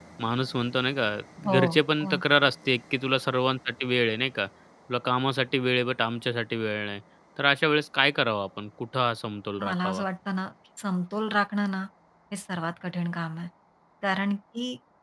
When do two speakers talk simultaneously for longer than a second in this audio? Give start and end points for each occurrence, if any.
none

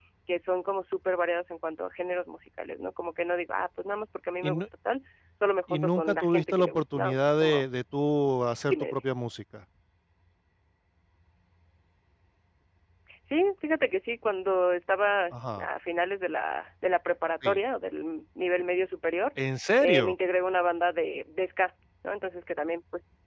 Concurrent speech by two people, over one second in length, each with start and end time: 5.7-7.6

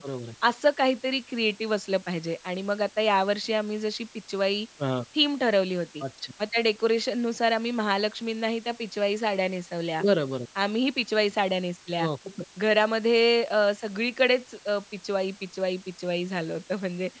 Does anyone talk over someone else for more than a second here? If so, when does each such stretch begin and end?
none

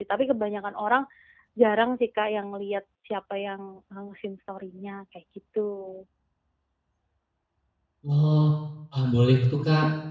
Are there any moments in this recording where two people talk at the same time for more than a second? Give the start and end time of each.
none

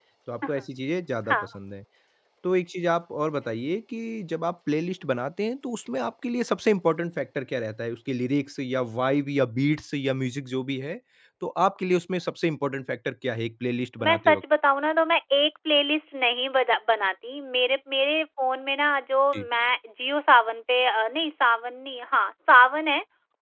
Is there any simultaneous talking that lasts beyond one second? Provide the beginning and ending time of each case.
none

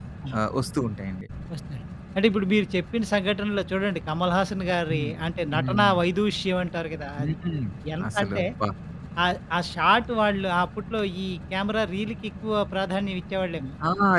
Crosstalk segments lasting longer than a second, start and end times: none

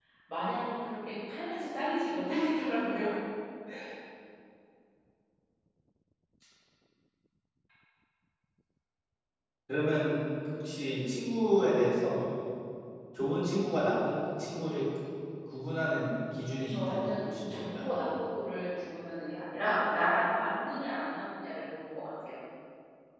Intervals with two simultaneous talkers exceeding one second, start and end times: 16.7-18.0

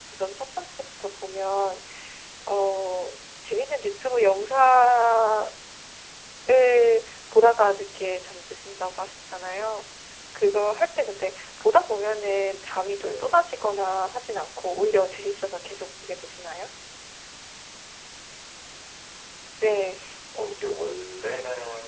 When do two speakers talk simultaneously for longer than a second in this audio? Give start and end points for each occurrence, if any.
none

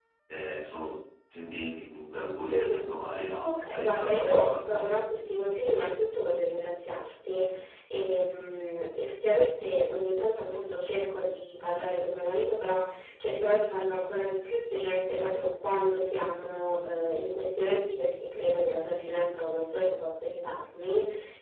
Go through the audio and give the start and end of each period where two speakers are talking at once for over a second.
3.4-4.9

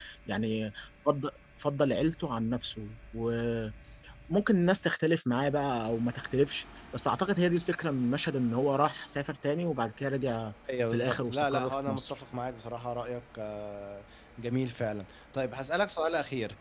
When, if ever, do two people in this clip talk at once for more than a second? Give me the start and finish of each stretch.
10.9-12.2

